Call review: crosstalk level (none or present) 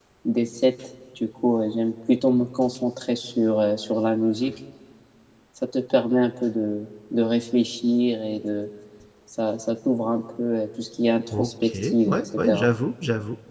present